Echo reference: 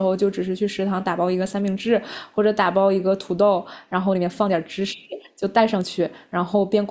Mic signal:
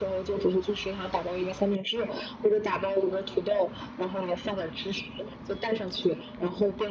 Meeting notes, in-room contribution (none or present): none